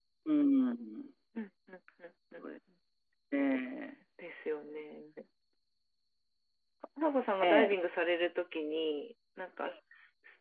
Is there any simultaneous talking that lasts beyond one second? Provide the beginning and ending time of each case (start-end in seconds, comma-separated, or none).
none